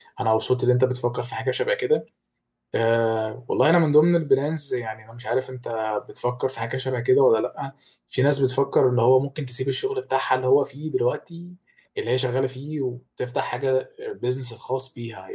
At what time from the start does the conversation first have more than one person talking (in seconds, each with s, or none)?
none